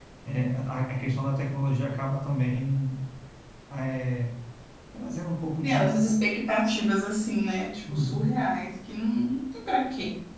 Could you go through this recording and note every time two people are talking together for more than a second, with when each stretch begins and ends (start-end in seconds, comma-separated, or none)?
none